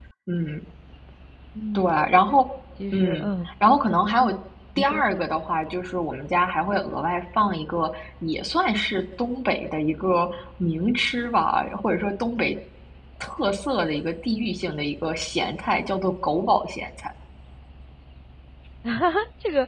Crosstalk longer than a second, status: none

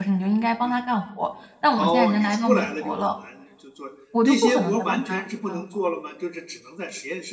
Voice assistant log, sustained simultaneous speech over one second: present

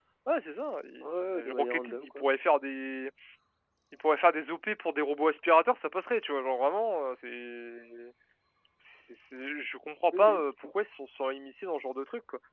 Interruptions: present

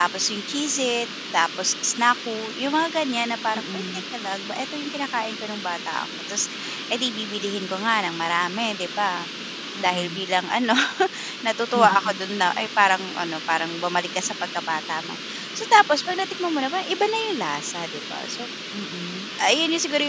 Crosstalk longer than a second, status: none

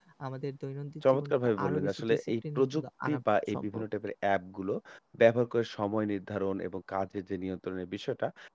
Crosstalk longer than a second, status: present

